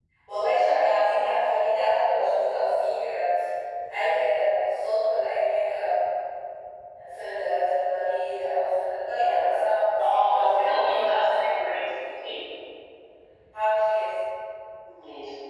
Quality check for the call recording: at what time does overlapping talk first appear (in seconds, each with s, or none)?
10.0 s